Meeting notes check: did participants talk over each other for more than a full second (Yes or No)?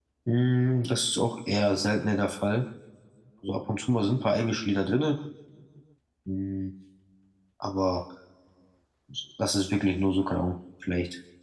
No